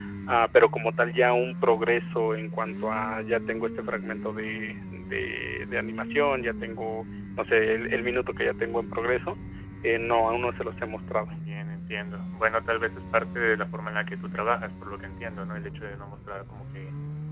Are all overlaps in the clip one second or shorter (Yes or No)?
Yes